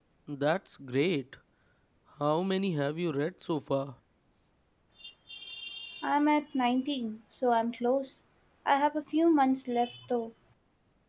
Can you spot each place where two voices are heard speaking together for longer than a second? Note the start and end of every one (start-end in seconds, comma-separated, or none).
none